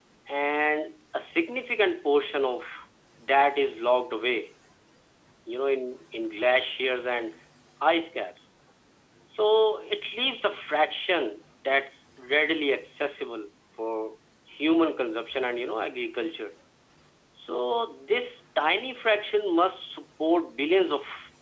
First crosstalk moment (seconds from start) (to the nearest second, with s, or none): none